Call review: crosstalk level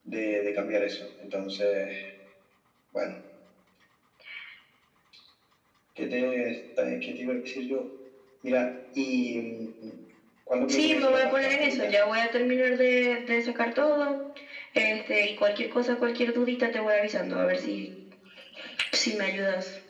present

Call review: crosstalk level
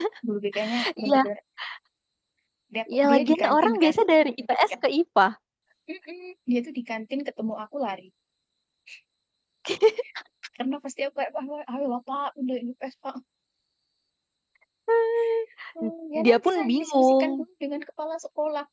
present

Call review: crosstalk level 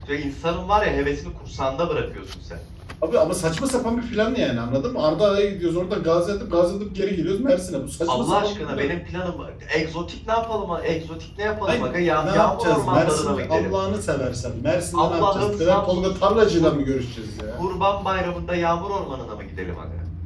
present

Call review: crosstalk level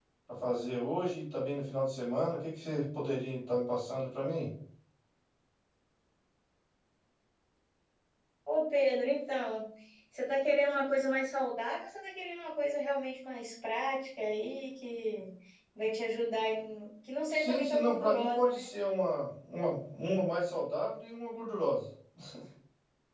present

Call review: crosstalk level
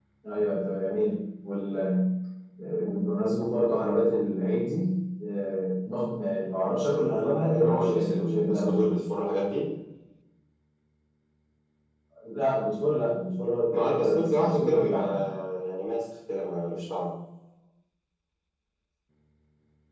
present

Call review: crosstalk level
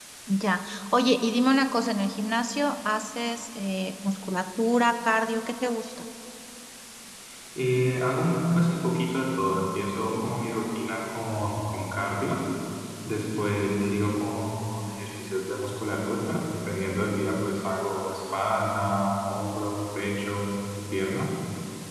none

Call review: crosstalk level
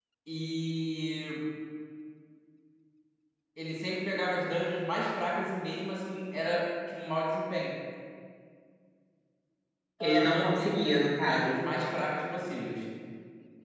present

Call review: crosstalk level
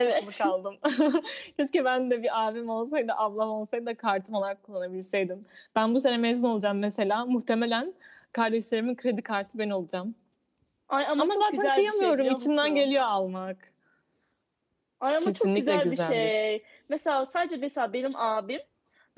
present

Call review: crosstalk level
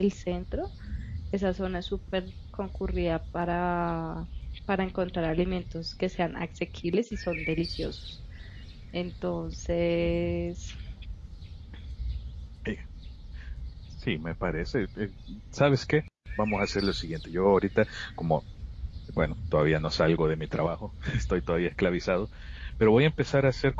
none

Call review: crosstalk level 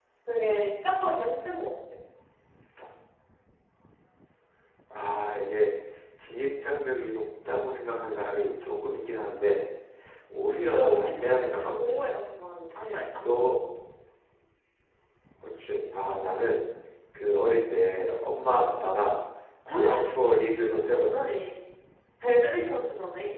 present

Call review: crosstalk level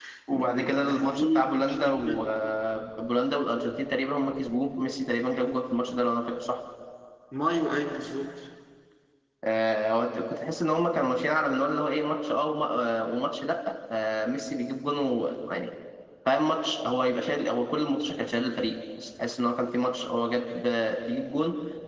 present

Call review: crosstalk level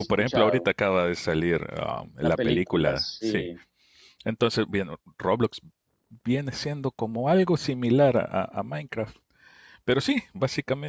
present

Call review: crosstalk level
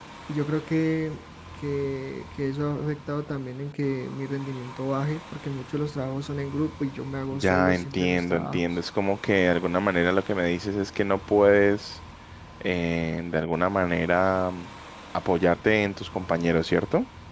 present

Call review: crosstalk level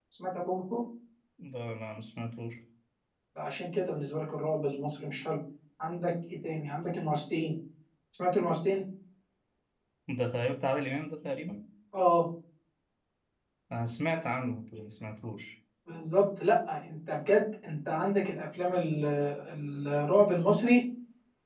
none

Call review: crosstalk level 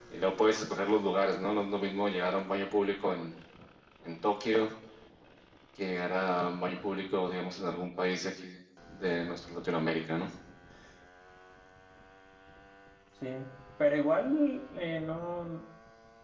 none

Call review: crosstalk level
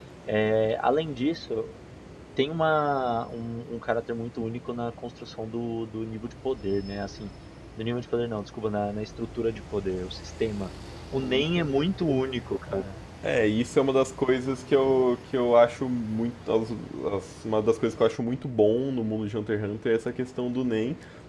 none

